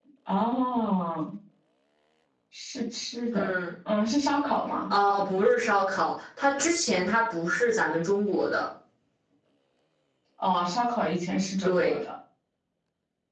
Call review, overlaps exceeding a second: none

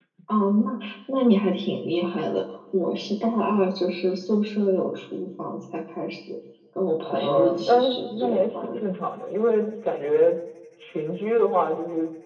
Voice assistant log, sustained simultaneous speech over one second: present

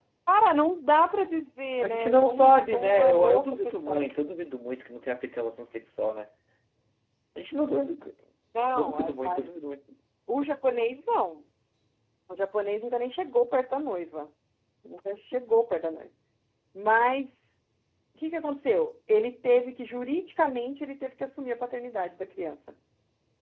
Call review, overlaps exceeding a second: present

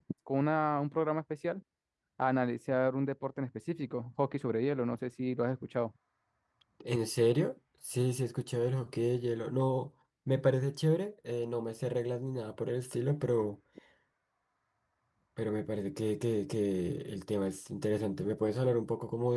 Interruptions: none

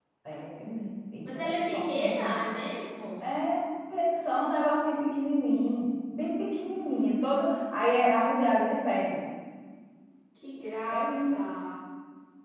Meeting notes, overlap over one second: present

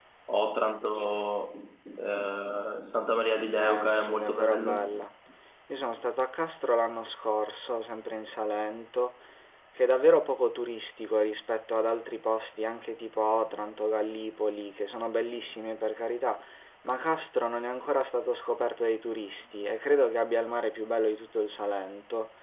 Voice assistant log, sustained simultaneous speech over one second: present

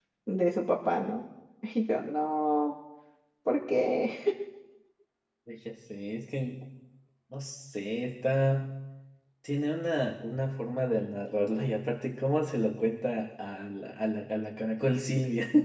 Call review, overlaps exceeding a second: none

